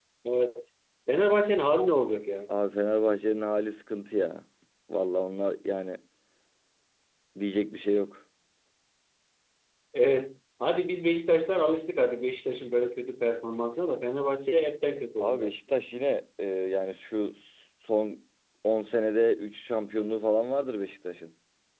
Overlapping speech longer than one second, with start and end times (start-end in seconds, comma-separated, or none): none